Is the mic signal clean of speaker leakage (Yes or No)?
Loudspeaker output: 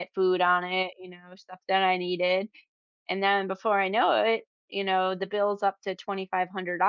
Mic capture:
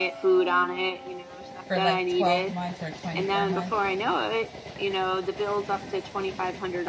No